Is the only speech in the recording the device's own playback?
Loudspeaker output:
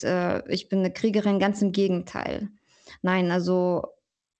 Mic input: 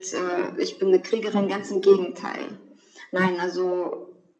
Yes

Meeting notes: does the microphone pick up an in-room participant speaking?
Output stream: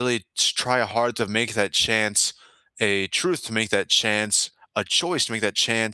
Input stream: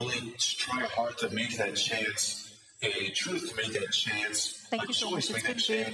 Yes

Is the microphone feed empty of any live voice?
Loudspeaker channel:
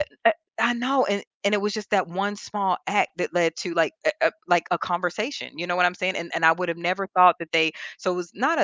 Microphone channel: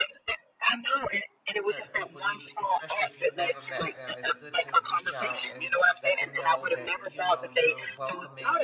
No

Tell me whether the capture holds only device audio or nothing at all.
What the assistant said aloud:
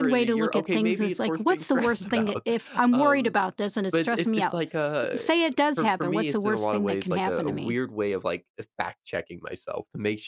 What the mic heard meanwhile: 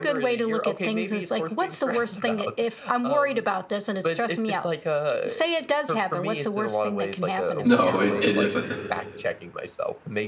No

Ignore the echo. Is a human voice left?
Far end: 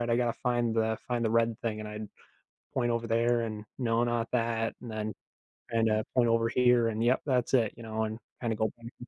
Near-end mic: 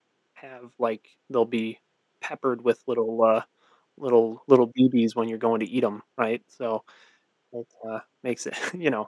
Yes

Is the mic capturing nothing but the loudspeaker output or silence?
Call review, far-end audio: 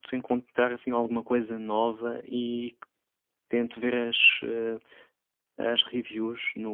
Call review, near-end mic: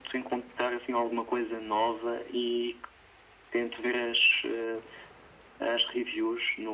Yes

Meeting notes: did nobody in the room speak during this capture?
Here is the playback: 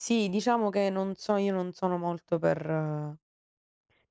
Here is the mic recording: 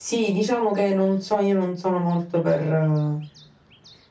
Yes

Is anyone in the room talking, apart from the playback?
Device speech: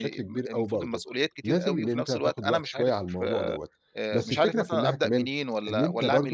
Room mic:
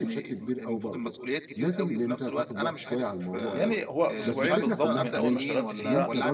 Yes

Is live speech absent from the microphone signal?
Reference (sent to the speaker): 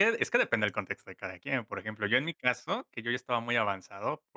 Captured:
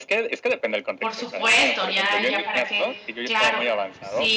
No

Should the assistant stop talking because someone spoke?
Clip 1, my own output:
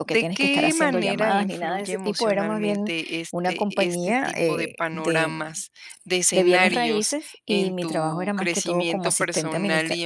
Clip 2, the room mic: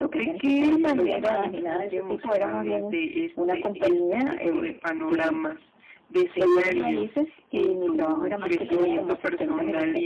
Yes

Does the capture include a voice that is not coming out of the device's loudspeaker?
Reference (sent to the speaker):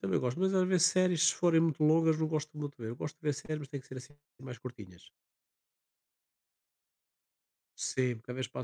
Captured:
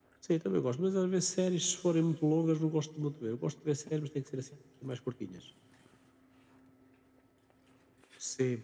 No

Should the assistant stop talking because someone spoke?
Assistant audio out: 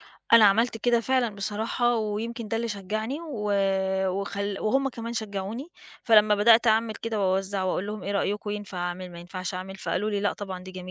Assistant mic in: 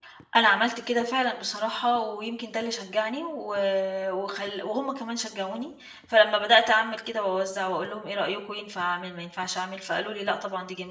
No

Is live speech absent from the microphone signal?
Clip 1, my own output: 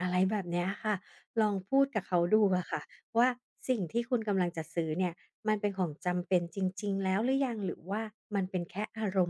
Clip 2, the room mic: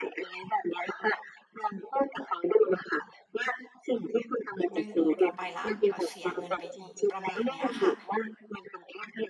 No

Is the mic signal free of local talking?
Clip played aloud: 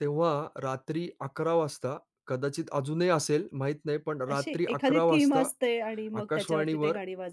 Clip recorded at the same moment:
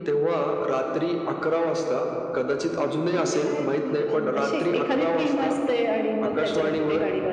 No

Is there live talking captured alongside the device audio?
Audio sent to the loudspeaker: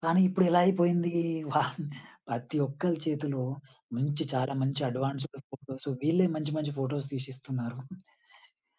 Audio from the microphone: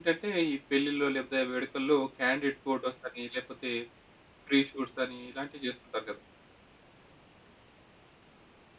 Yes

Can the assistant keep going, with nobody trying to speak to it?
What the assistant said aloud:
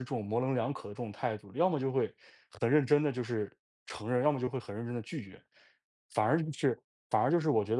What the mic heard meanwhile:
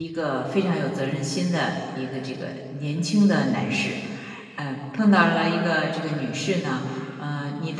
No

